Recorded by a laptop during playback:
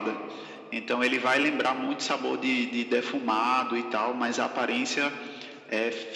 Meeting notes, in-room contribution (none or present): none